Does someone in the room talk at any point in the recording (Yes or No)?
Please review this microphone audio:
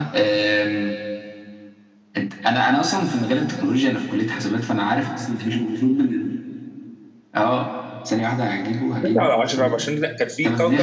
Yes